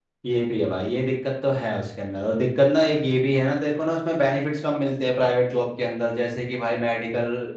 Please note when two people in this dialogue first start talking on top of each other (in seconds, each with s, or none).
none